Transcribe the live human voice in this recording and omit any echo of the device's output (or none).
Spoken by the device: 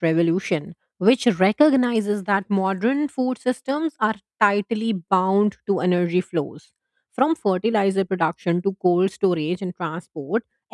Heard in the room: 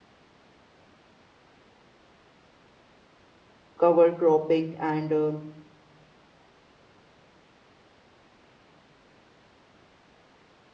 cover cropping, and uh,